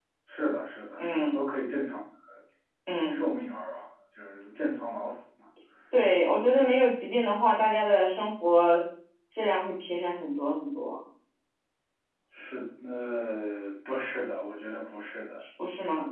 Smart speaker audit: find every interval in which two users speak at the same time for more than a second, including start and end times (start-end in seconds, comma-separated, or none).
none